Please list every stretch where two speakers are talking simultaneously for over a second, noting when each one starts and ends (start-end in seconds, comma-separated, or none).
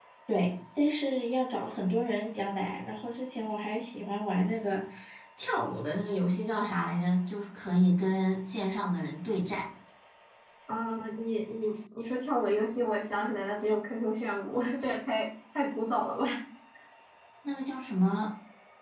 none